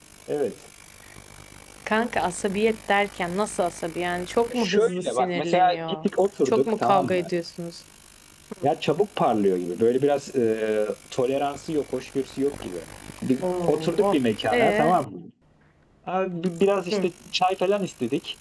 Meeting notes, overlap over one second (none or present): present